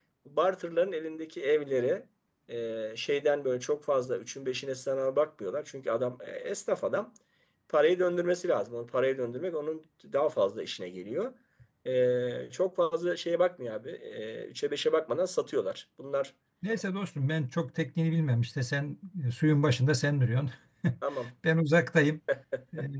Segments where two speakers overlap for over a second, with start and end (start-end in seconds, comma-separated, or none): none